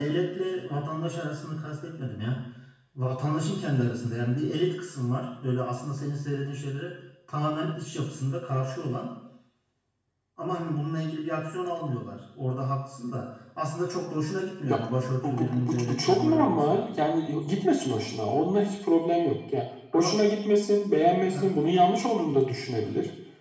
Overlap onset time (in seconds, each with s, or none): 15.2 s